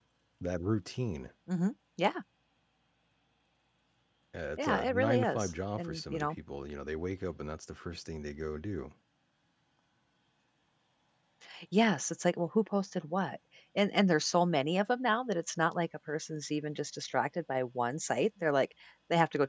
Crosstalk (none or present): present